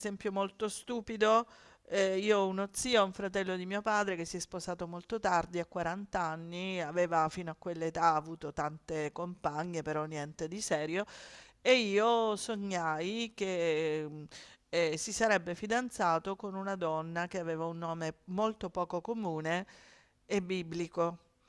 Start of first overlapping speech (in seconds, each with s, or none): none